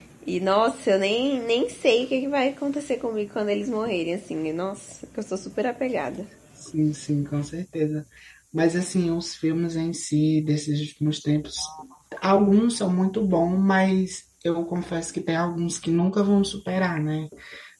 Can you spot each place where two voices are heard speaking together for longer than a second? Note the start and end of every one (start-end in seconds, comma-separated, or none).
none